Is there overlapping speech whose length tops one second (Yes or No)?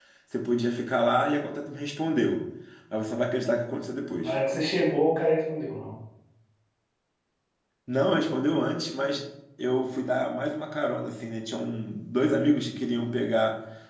No